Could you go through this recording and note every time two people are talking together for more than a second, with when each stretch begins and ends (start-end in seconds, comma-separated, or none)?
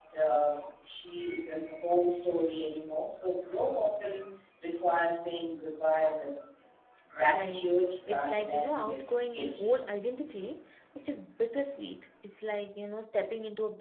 8.1-9.7